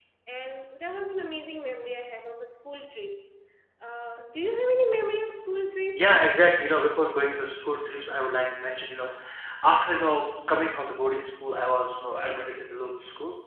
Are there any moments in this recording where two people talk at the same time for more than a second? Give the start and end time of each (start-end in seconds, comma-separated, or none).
none